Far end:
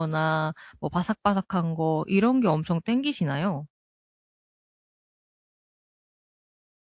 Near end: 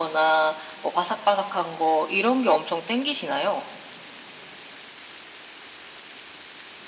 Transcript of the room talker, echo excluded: none

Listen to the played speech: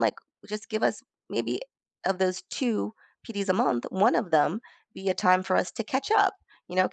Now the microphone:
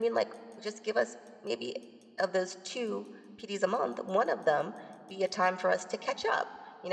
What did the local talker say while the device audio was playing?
none

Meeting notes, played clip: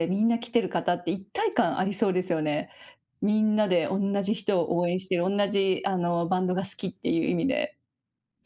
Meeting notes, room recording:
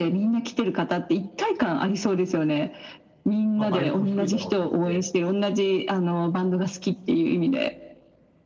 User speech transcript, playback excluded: まあ、倍率も低いだろうと思って、

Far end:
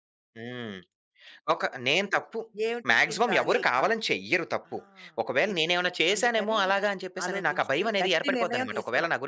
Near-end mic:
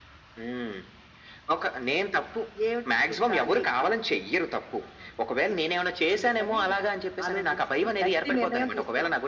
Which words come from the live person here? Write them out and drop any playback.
none

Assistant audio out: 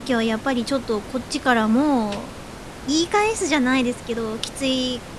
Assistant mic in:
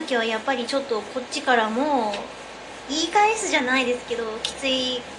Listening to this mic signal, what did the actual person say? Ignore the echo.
none

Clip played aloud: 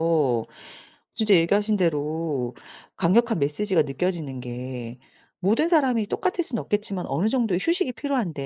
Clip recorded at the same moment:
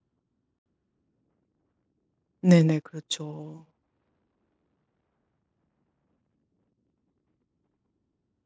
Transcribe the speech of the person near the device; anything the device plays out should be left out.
네네. 그렇죠.

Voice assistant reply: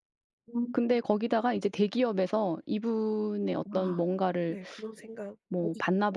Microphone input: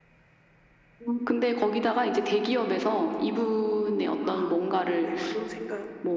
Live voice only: none

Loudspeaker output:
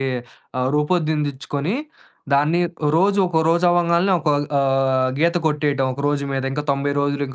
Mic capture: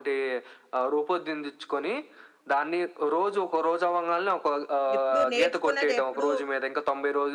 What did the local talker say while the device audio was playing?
ఎప్పుడు నేర్చుకున్నదెప్పుడూ

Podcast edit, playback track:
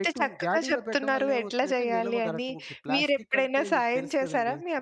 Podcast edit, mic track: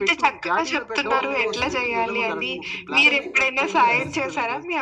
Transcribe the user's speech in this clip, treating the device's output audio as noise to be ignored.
పోపు వేసి ఈ, ఈ ముద్దని అందులో వేస్తారు.

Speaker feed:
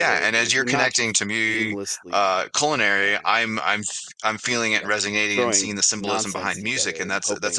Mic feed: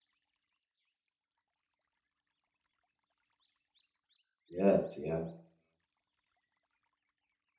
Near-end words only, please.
yes, yeah,

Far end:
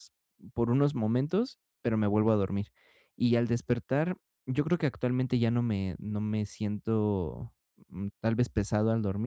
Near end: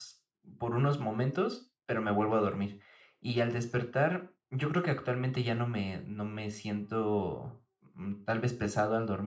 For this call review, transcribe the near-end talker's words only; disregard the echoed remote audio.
none

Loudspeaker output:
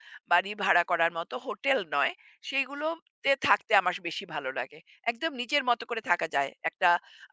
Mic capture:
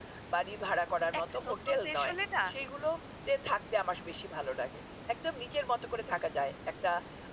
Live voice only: একটা নতুন দেশ হলে না,

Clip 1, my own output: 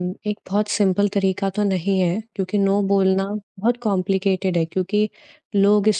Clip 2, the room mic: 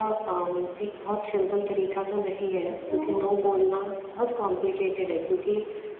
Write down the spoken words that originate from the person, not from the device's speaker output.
तो अ,

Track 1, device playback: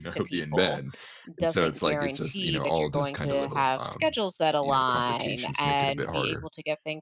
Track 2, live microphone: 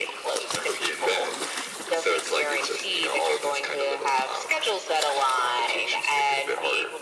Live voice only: none

